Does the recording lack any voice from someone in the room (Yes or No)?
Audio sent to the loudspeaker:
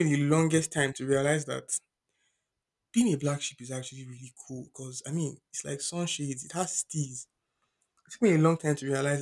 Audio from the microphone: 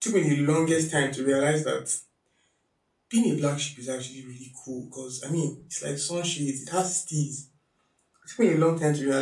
Yes